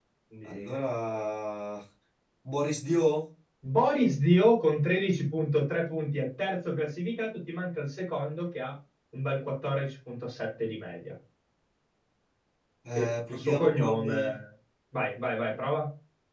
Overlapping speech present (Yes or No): Yes